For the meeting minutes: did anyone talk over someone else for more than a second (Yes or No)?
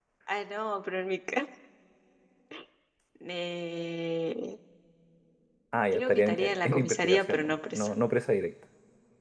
Yes